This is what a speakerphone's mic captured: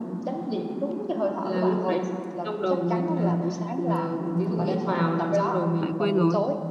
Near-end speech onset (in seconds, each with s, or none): 5.8 s